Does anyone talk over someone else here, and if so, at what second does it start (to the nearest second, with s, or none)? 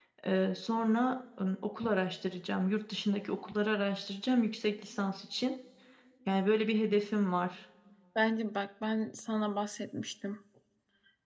none